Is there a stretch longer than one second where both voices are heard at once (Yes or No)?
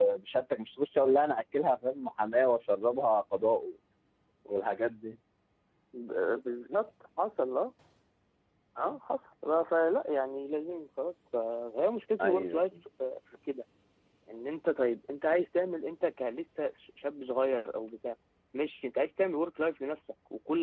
No